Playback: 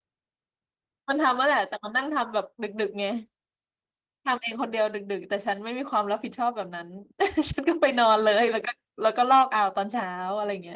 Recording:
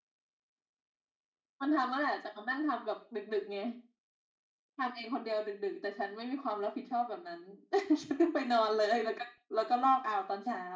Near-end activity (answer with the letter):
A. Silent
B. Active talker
A